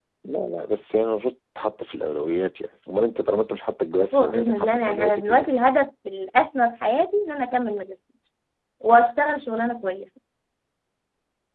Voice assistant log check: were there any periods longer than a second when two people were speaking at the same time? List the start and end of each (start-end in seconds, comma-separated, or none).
4.1-5.5